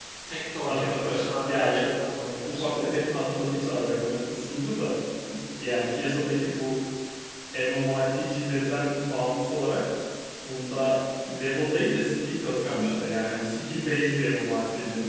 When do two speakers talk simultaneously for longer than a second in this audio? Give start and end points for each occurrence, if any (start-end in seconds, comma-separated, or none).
0.6-3.2